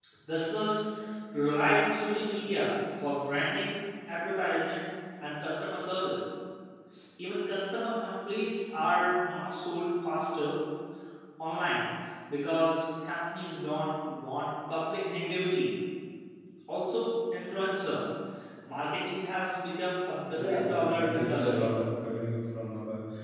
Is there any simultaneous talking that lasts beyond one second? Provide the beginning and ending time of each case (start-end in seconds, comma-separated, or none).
20.4-21.7